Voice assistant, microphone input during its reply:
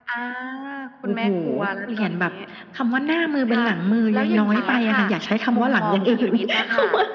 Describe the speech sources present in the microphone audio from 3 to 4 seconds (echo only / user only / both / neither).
echo only